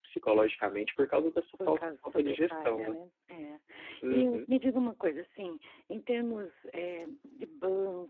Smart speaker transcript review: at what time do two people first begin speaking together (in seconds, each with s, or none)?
1.7 s